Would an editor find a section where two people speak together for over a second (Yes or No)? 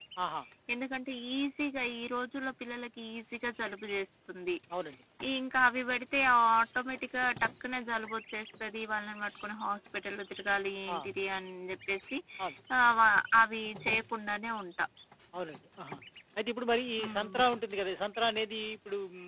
No